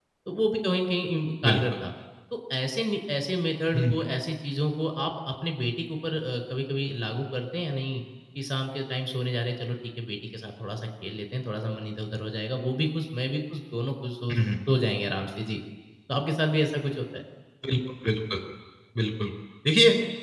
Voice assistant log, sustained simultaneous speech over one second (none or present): none